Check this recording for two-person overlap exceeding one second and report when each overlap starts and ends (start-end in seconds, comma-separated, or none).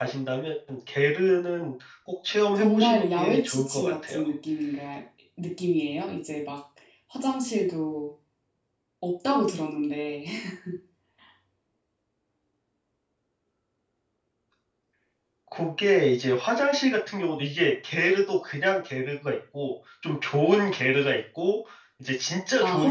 2.6-4.2